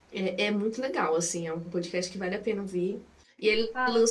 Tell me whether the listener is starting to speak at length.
No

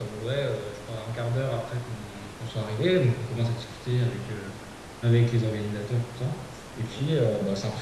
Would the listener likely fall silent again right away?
Yes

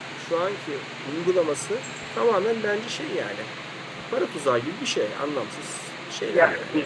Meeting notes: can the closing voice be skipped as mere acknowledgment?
No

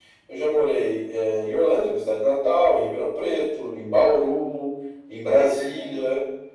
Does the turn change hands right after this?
No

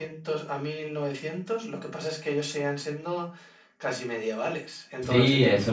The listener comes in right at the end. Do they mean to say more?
Yes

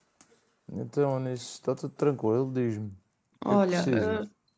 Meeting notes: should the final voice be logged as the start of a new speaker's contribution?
Yes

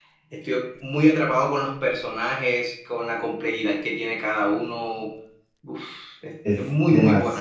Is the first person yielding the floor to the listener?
Yes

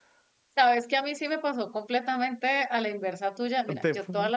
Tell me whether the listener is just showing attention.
Yes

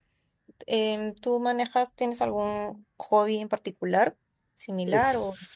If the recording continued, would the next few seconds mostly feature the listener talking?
Yes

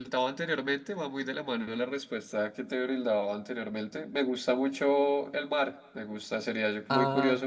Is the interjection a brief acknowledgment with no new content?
Yes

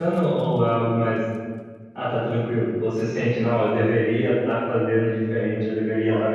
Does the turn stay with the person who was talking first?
Yes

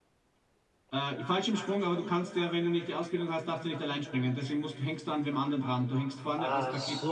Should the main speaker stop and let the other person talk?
Yes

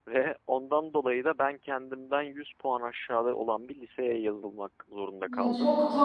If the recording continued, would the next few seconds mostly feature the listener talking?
Yes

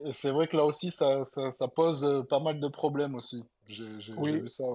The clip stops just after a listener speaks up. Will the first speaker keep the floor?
No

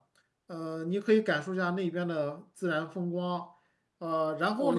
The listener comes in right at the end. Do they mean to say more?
Yes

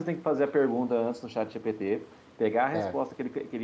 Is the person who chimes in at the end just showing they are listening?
Yes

